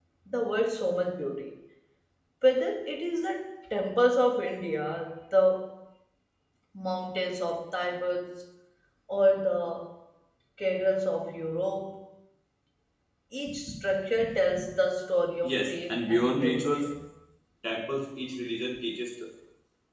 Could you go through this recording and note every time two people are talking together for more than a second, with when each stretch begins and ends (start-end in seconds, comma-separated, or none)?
15.4-16.9